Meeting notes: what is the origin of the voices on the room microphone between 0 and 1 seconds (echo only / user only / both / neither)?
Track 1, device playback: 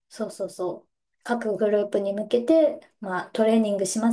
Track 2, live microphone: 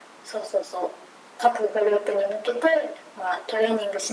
echo only